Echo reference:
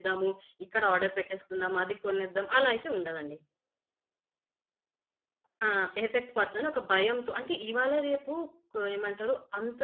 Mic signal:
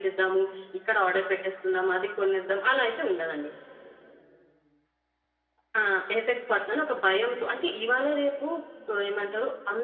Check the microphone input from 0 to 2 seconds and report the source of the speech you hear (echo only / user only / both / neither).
echo only